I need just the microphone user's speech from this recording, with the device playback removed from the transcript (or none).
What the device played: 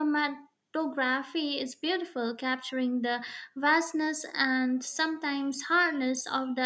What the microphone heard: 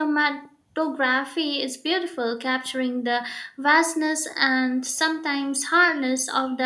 none